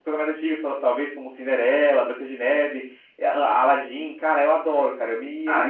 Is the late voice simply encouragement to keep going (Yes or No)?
No